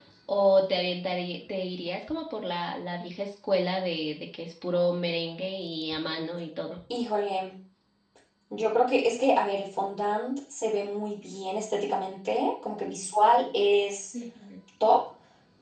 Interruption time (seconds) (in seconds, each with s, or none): none